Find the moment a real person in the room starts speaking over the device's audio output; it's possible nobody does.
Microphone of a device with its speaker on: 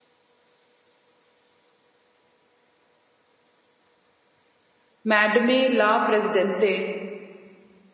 5.0 s

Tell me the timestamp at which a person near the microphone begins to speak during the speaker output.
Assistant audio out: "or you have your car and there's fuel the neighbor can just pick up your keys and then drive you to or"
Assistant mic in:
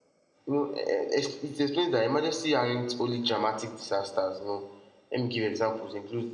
0.5 s

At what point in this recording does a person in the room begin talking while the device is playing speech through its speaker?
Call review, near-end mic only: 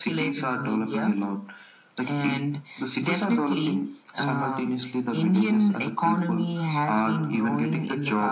none

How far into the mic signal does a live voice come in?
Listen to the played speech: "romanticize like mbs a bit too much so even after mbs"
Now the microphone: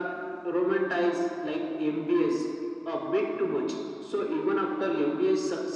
none

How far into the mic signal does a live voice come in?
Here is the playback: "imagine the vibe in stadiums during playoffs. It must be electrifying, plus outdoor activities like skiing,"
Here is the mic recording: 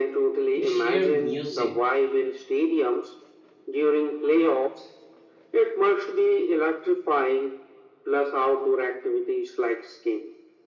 0.6 s

